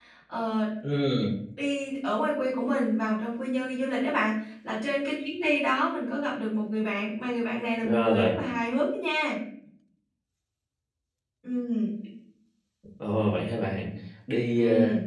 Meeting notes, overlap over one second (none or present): none